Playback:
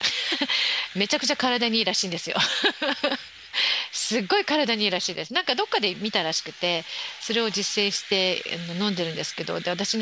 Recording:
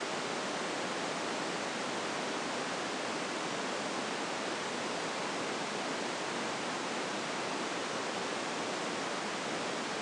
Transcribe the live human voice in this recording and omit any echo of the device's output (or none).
none